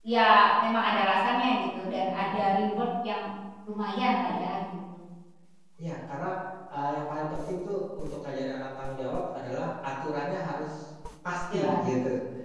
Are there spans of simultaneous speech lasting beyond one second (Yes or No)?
No